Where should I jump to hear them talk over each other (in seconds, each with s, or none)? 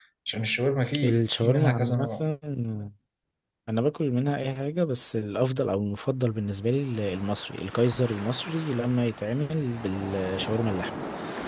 1.0 s